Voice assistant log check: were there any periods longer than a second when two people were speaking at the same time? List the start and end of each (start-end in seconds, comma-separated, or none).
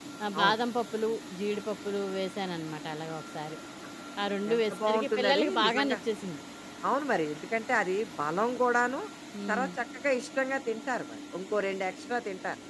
4.5-6.0